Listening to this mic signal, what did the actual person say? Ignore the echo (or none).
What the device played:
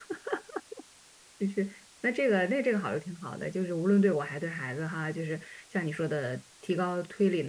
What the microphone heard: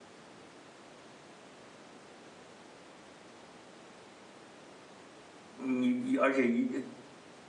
你而且一